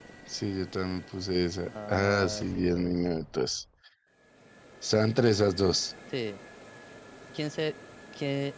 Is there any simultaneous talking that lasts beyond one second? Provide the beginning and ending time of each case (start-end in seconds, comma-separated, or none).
1.7-2.9